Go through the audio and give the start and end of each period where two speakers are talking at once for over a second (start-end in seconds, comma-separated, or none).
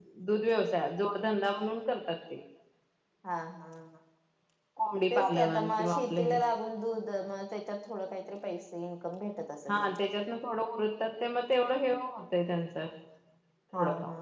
5.1-6.4